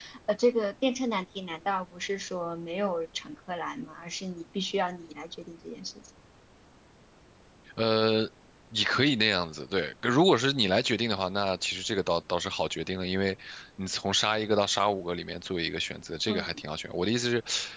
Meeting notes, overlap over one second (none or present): none